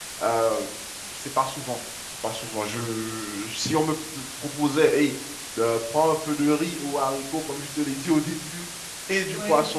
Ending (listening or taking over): listening